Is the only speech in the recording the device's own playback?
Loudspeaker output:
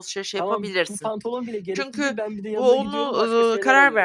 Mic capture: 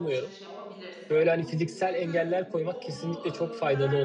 No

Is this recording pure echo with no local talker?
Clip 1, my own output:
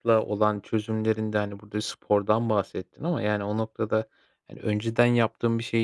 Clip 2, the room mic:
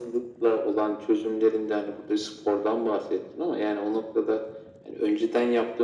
Yes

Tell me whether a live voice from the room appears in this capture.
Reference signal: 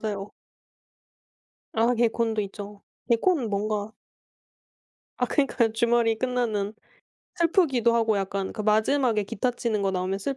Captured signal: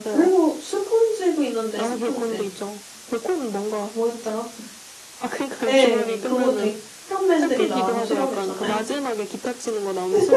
Yes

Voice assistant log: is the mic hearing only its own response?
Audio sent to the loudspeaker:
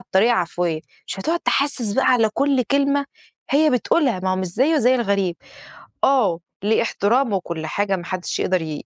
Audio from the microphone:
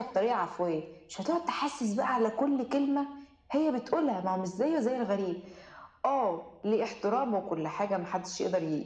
Yes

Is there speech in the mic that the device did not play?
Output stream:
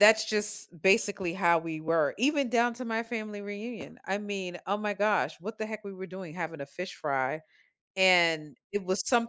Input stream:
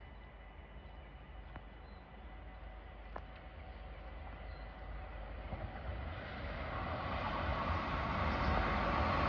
No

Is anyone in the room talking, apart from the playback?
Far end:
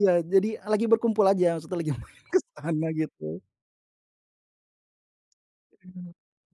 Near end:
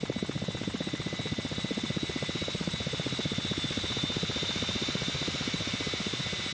No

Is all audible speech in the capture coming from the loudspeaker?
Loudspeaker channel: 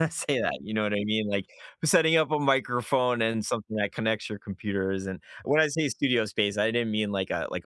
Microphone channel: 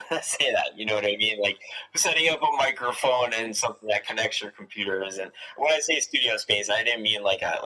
Yes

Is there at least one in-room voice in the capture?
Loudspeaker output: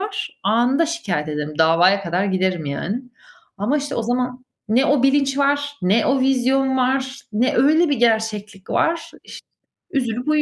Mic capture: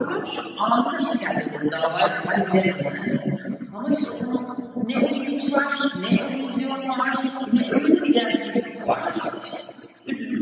No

